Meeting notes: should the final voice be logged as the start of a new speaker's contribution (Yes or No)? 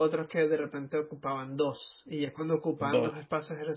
No